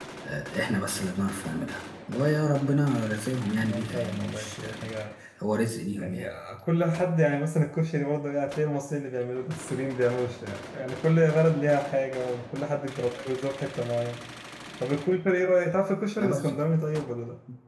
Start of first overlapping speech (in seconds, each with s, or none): 3.6 s